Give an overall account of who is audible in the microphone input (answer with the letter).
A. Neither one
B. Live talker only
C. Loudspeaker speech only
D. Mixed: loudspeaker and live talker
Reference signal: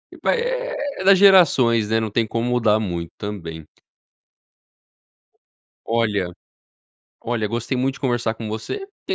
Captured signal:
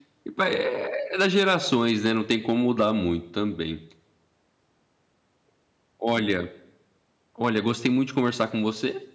C